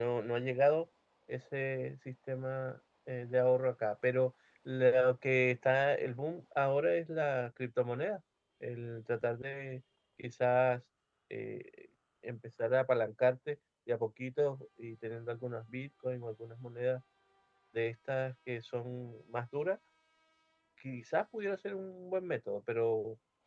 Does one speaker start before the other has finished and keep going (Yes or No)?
No